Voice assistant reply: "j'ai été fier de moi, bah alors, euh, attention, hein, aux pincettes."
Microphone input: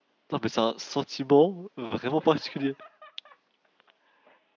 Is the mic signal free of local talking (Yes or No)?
No